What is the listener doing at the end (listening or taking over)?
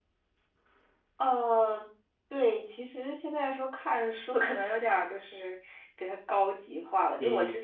listening